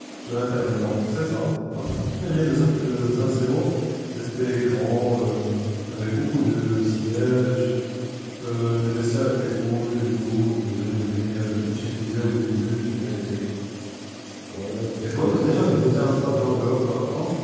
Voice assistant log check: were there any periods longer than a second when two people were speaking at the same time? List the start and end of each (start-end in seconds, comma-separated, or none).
15.0-16.7